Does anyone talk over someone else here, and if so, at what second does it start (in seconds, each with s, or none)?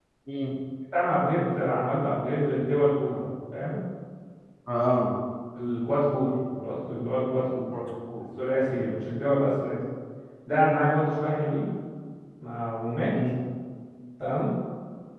none